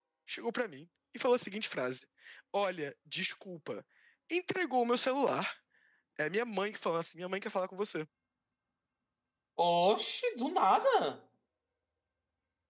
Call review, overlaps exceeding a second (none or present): none